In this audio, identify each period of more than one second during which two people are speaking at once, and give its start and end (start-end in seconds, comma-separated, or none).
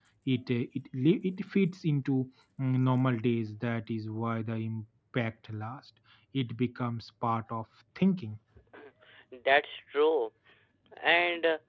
none